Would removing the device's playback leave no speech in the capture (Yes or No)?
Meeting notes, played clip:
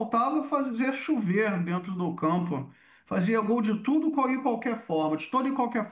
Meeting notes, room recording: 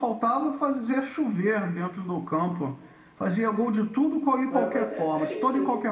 No